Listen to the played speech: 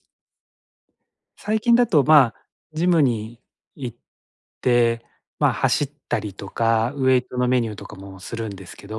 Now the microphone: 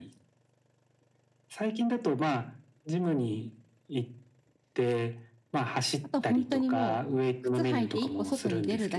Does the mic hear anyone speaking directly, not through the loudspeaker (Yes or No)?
Yes